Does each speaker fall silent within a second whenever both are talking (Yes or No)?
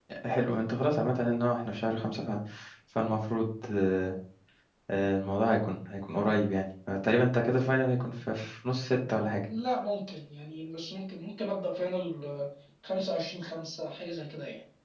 Yes